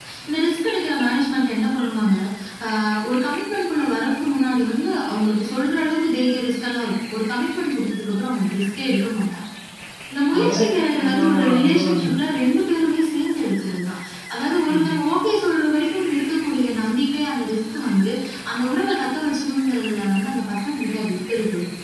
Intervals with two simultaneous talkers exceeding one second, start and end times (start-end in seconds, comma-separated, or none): 10.4-12.1